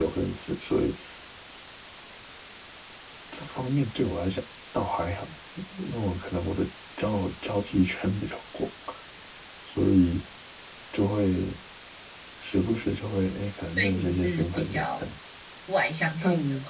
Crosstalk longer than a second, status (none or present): present